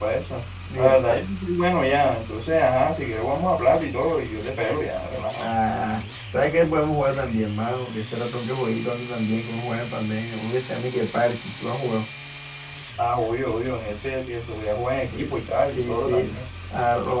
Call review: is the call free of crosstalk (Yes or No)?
No